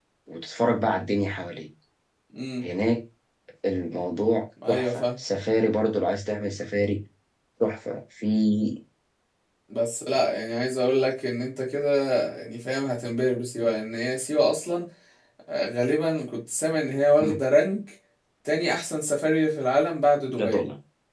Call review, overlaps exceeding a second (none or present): none